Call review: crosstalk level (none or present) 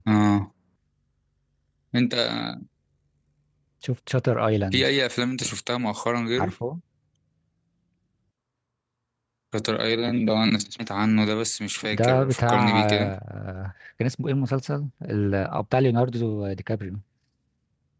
present